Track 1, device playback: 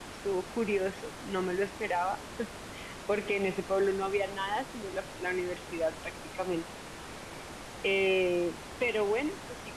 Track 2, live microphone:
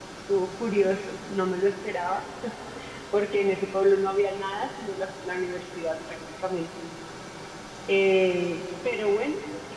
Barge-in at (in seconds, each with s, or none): none